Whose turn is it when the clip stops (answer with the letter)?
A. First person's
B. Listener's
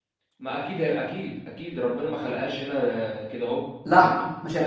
B